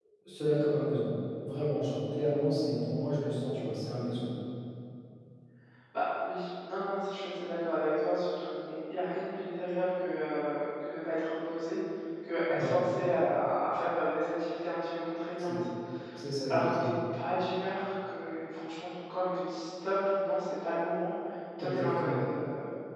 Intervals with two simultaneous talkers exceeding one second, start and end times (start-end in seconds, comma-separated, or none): none